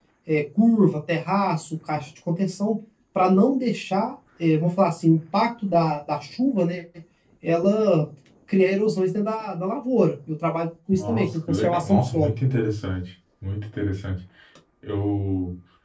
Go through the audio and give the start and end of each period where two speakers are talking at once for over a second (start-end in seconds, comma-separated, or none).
10.9-12.3